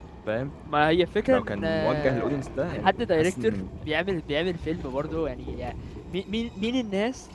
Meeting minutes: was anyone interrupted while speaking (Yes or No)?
Yes